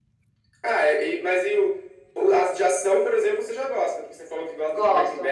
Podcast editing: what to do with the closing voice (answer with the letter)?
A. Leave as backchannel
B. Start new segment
A